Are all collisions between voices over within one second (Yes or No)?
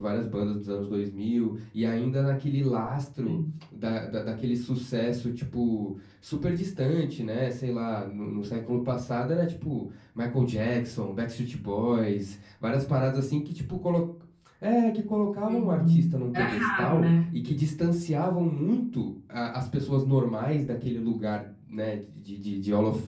No